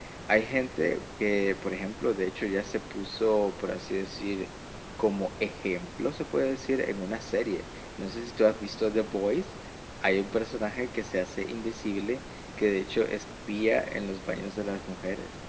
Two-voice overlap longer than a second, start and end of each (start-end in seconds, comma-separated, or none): none